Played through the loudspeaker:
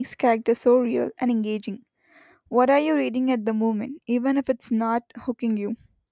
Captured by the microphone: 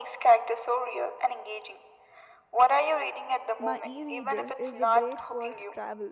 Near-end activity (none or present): present